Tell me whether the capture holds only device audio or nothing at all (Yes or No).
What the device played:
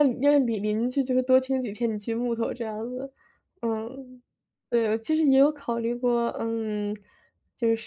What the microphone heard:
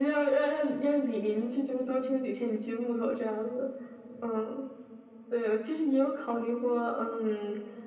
Yes